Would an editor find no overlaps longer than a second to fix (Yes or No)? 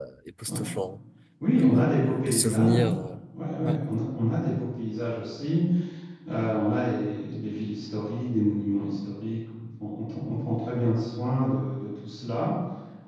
No